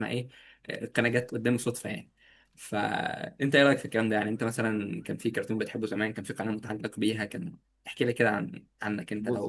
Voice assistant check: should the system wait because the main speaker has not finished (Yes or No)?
No